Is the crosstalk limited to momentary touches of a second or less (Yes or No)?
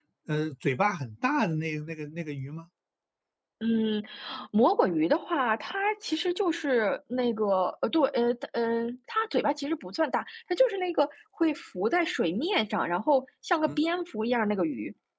Yes